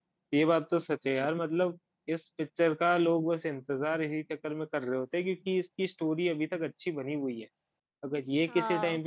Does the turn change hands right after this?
No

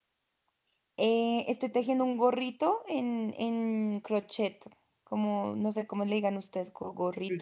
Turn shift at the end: Yes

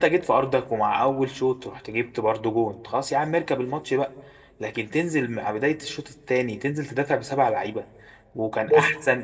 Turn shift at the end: No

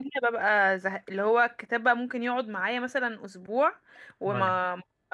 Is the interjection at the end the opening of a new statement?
No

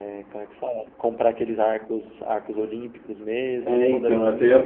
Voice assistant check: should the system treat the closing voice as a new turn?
Yes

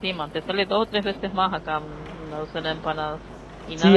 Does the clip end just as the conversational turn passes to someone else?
Yes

